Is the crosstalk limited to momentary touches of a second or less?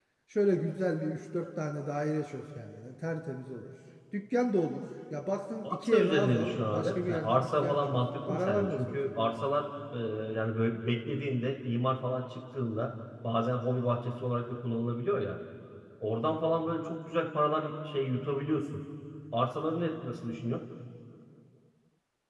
No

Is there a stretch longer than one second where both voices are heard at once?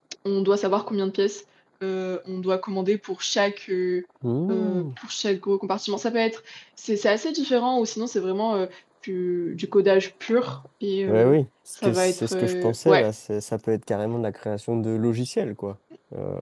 Yes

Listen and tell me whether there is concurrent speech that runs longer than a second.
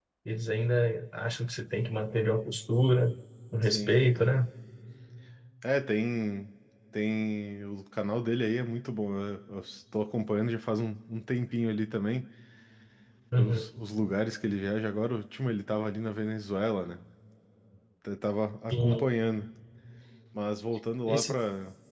No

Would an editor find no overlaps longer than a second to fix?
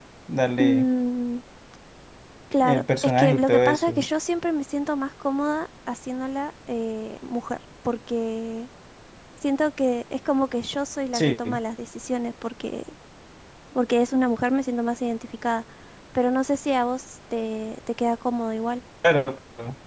No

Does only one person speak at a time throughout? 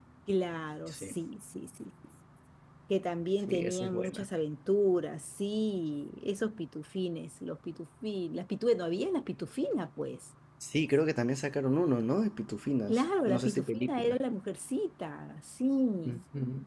No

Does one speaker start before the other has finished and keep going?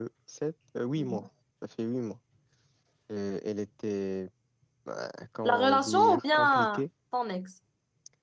Yes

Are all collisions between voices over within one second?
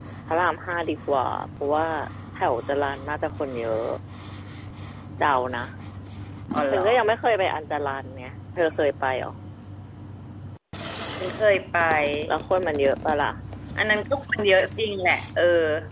Yes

